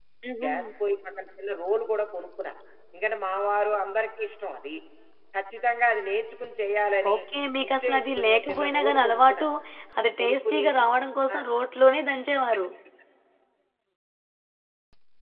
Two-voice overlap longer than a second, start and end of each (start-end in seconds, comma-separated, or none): 7.6-9.5